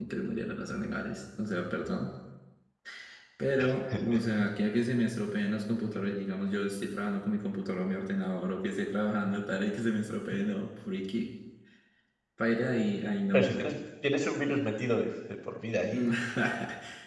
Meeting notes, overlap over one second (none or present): none